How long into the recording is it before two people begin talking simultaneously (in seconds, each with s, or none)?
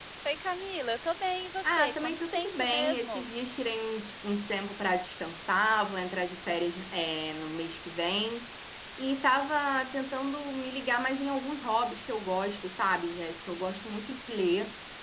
1.6 s